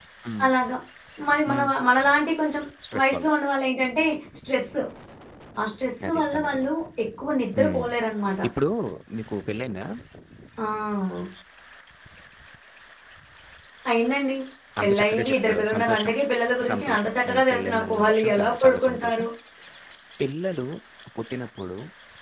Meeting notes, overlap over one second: present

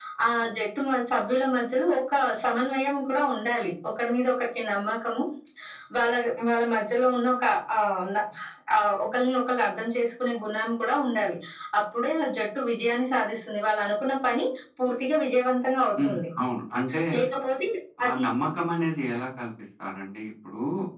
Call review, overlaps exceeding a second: none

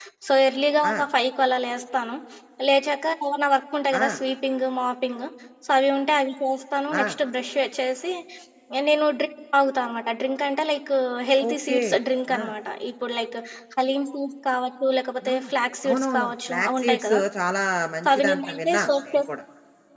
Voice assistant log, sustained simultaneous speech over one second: present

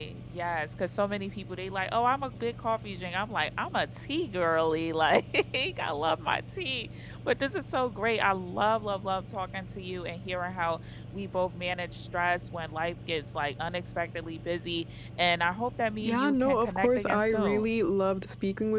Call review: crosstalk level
present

